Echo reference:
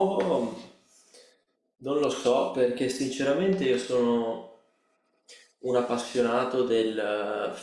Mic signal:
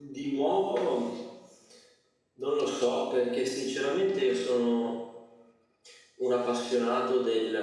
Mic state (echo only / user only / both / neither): echo only